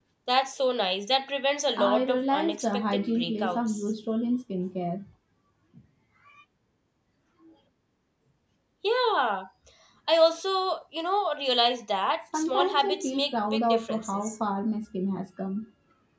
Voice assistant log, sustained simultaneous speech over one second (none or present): present